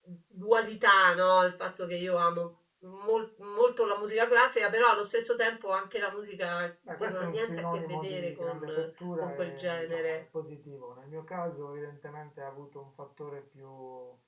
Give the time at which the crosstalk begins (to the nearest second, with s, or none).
7 s